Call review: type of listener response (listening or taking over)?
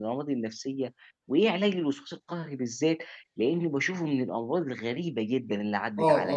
taking over